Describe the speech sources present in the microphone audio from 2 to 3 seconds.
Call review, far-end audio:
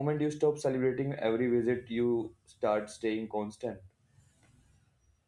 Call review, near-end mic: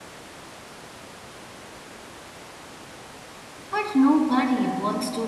neither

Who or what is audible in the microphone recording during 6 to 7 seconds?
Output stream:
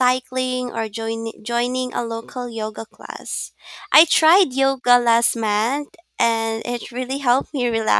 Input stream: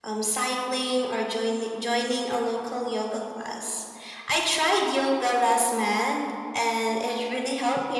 echo only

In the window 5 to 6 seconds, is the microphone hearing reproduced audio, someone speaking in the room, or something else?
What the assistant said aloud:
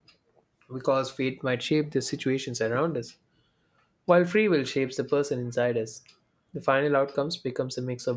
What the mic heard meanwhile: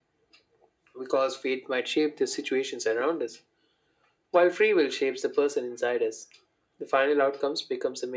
echo only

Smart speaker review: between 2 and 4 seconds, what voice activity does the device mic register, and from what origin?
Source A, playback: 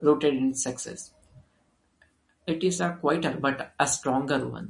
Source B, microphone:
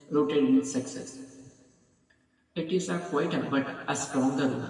echo only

